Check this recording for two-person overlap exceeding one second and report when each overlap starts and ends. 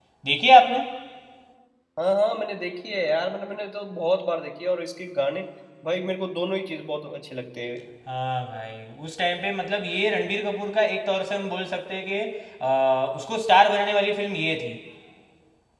none

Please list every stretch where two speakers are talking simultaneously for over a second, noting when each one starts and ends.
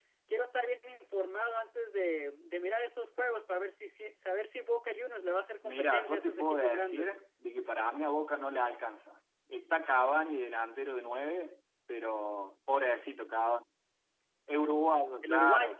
5.6-7.1

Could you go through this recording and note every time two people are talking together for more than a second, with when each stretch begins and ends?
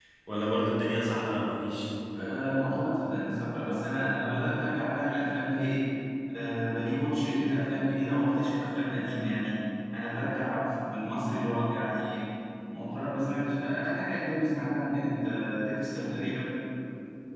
none

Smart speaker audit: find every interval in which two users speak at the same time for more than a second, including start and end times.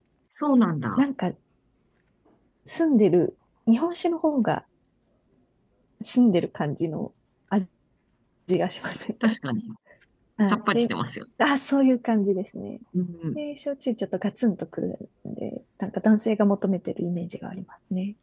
none

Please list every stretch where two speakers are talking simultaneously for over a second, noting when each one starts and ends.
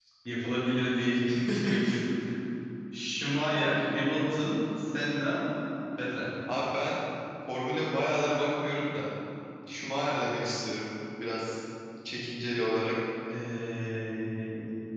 none

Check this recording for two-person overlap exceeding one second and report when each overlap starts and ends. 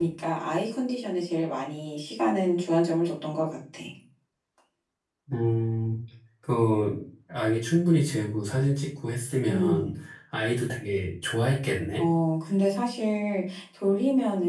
none

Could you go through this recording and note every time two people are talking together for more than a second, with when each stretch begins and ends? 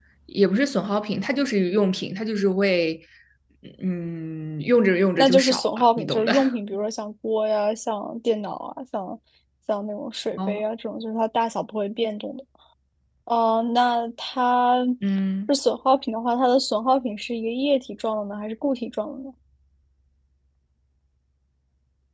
5.2-6.5

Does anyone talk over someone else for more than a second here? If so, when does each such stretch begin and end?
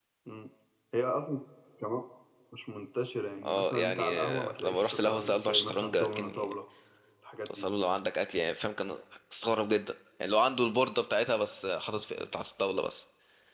3.4-6.5

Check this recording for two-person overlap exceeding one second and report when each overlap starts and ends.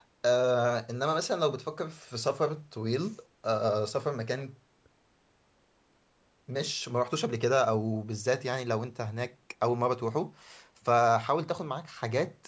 none

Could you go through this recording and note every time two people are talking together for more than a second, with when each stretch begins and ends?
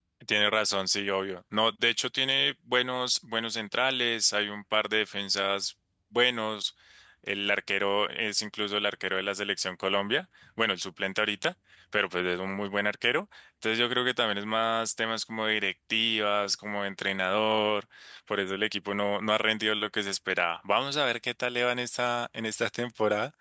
none

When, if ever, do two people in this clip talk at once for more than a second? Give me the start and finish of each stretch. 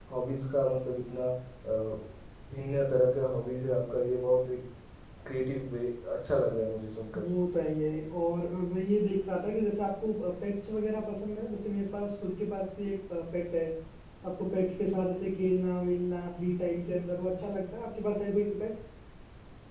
none

